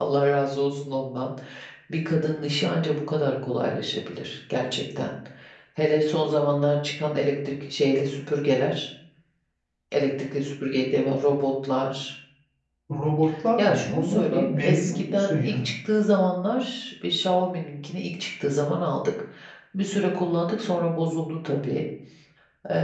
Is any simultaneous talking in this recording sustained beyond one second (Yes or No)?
Yes